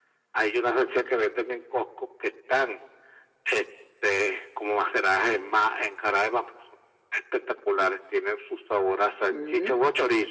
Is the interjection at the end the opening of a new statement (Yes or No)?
No